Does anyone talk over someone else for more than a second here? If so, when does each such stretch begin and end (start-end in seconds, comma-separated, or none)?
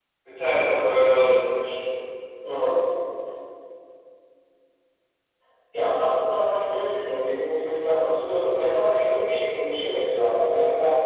none